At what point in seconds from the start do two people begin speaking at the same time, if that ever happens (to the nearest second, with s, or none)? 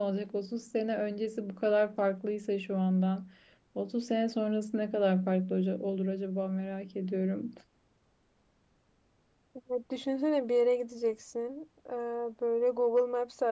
none